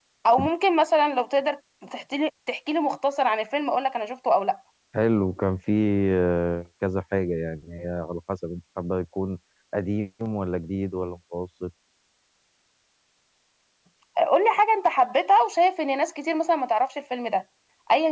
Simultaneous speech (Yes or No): No